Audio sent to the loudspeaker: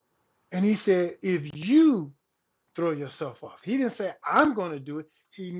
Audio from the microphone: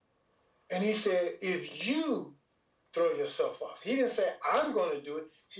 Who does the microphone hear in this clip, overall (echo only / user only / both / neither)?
echo only